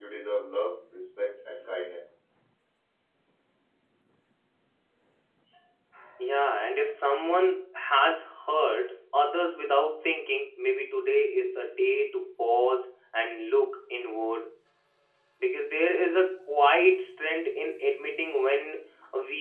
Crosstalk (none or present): none